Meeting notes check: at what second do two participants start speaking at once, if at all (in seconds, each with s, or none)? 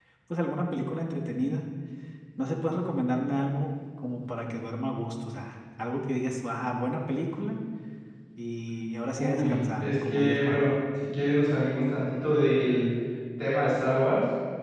9.2 s